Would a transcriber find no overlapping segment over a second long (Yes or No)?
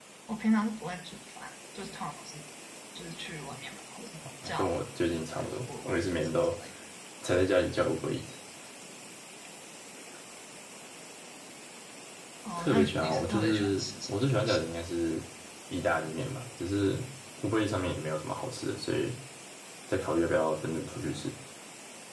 No